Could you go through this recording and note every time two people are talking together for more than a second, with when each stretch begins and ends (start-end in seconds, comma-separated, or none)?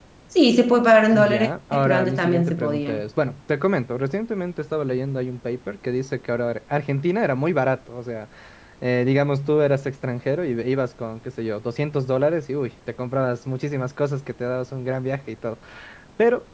1.1-3.0